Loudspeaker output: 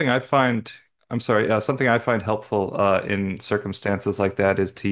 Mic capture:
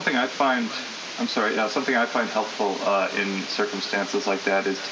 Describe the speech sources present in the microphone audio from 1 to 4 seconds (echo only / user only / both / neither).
echo only